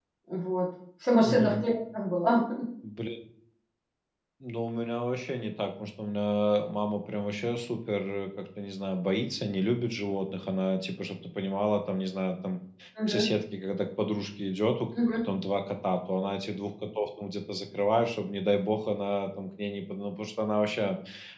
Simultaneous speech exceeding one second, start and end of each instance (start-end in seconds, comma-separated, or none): none